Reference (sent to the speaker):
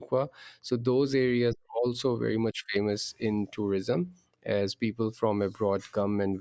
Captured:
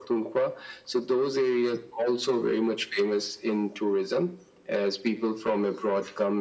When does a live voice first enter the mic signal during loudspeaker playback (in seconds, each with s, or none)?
none